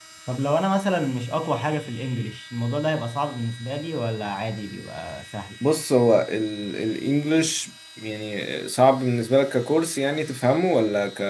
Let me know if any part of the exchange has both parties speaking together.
No

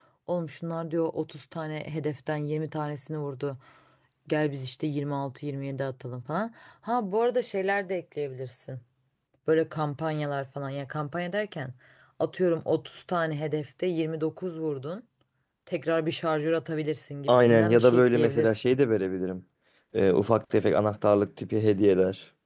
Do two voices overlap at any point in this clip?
Yes, from 17.3 s

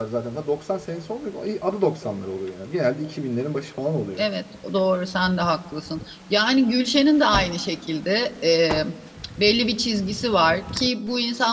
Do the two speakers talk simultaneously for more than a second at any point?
No

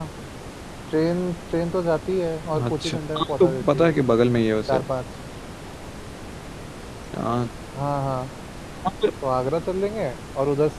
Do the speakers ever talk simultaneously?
Yes, from 2.5 s

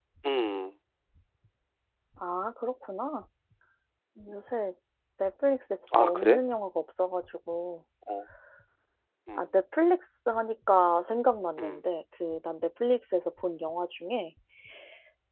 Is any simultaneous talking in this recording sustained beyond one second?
No

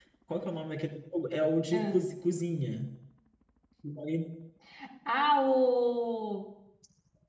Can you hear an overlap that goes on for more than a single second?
No

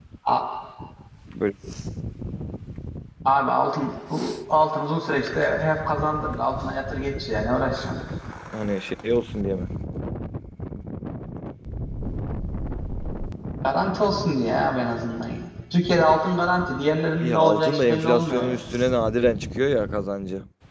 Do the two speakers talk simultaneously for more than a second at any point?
Yes, from 17.2 s

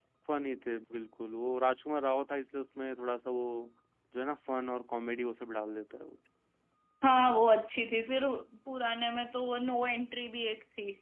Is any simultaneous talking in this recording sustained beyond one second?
No

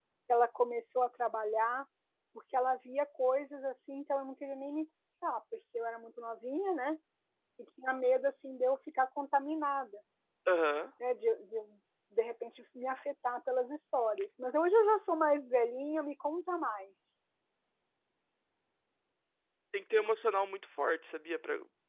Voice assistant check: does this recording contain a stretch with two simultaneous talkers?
No

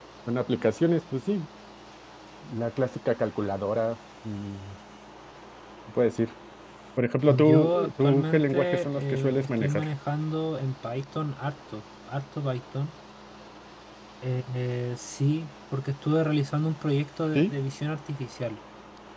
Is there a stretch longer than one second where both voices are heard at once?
Yes, from 7.3 s

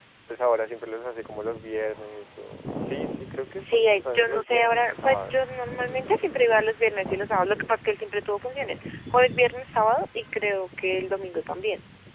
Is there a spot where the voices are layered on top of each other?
Yes, from 3.6 s

